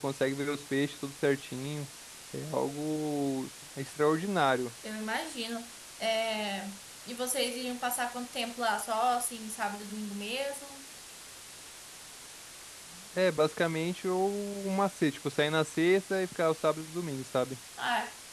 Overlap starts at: none

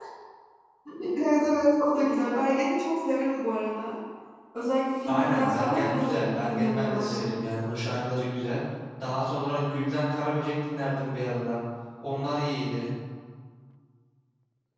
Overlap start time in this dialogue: 5 s

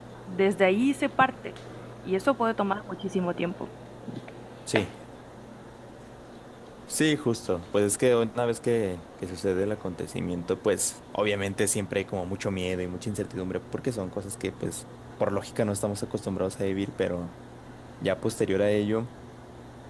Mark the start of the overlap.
none

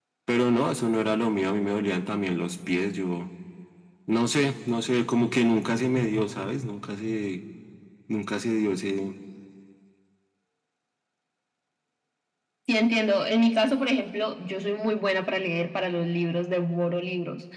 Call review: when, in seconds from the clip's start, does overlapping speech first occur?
none

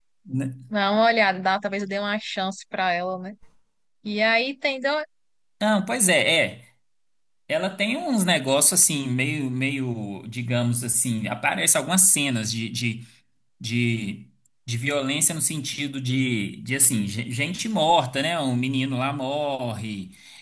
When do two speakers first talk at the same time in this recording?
none

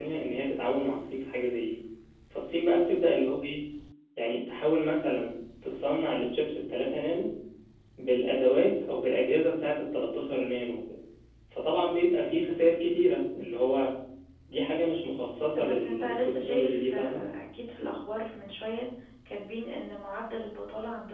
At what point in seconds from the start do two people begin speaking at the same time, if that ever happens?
16 s

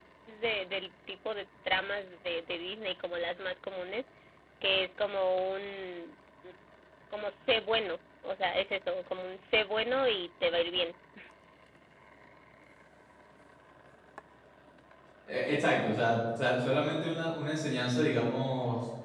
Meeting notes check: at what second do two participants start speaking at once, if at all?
none

